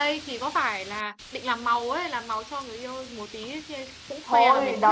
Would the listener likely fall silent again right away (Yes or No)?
No